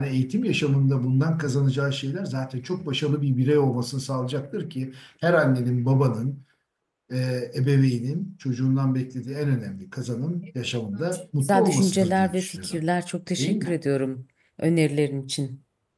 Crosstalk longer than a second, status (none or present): present